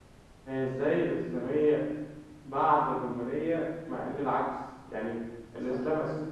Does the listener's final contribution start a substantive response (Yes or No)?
No